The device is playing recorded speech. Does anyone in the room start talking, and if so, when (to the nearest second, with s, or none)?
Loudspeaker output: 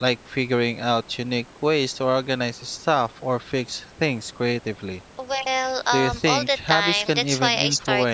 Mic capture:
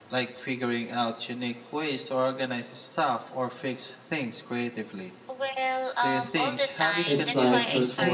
7 s